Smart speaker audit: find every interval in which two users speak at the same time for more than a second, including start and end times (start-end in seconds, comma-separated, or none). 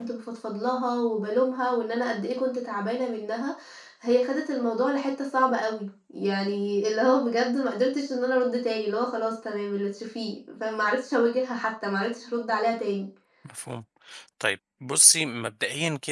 none